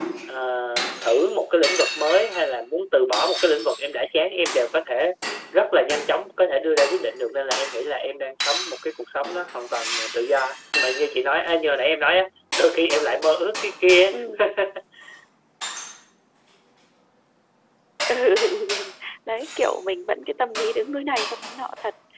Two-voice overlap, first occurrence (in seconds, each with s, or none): none